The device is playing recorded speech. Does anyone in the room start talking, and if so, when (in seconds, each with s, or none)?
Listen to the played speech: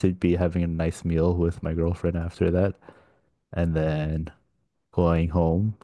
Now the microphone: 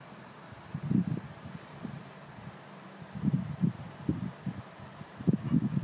none